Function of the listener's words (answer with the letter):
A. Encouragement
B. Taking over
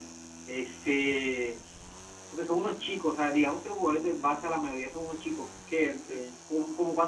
A